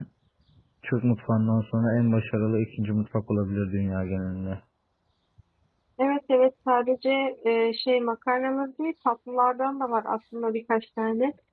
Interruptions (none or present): none